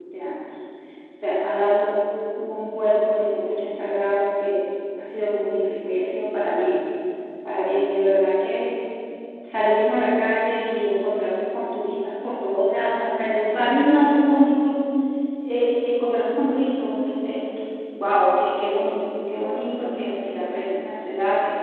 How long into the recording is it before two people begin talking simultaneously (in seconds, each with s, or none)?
none